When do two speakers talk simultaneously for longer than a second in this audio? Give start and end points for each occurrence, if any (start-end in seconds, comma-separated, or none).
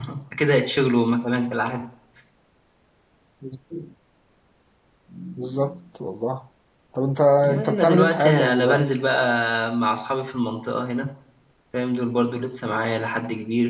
7.6-8.9